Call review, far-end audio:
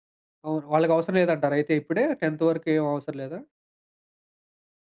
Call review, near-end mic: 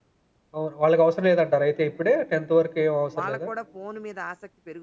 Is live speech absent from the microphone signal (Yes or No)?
No